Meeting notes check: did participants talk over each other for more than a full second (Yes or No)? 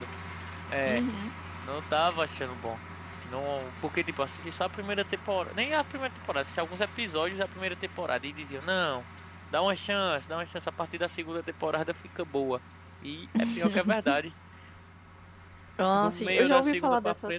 Yes